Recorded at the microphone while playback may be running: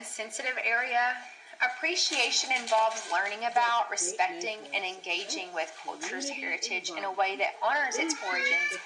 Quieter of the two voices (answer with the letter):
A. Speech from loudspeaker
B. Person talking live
B